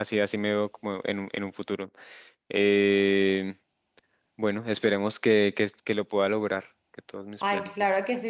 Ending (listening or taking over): taking over